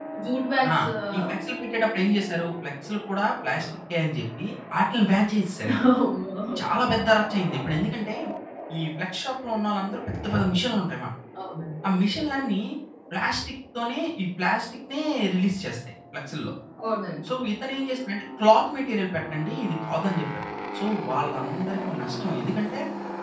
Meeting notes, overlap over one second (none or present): none